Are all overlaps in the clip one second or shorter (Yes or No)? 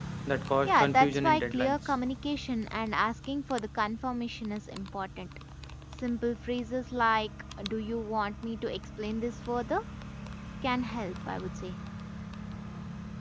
No